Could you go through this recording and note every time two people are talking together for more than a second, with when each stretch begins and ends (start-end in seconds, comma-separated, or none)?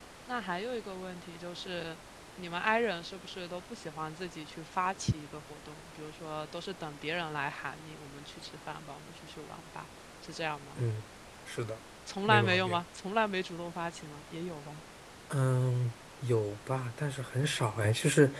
none